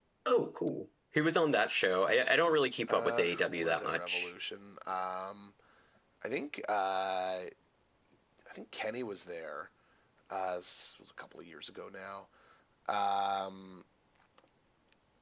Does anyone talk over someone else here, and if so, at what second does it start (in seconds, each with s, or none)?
2.9 s